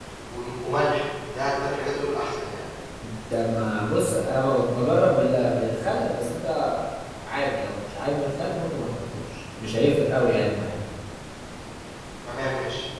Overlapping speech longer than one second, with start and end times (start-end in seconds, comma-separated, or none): none